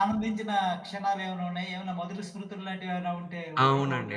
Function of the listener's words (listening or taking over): taking over